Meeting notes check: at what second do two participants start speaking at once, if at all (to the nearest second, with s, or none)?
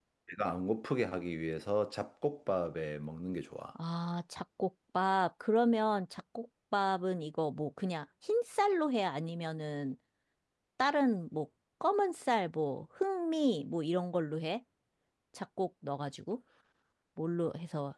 none